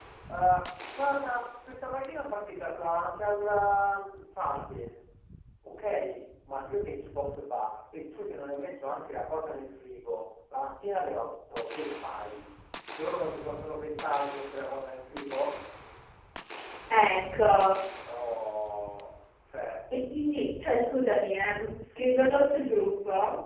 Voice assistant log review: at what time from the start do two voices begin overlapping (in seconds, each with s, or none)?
none